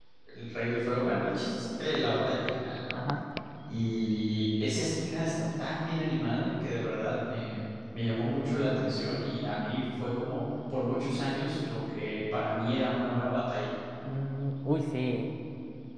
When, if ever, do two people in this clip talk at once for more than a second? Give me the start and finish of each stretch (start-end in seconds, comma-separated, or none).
none